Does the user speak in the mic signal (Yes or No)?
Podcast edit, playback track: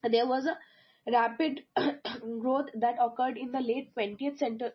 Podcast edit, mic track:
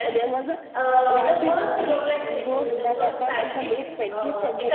Yes